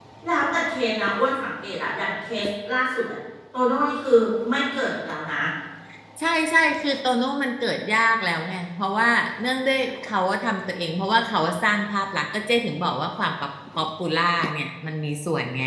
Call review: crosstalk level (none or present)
none